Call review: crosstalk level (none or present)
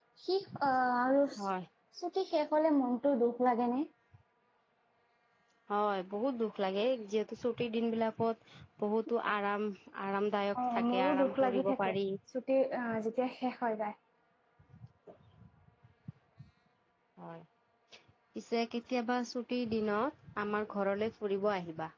present